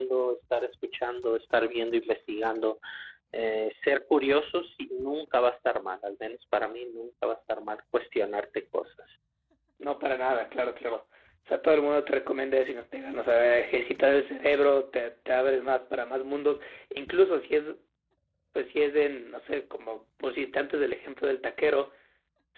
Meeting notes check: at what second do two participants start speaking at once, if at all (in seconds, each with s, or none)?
none